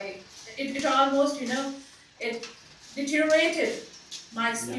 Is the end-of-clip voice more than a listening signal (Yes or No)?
Yes